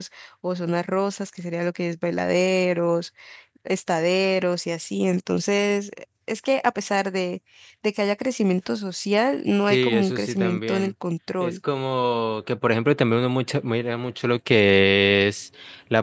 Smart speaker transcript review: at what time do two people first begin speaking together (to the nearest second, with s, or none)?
10 s